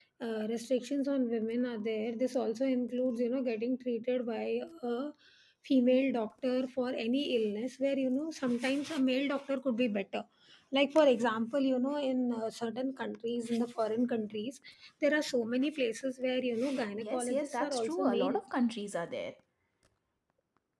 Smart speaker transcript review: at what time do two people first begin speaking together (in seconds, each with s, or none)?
16.9 s